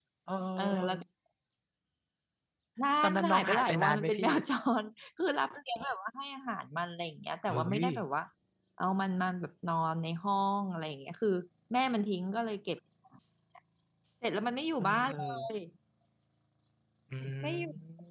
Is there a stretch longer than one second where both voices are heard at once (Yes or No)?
Yes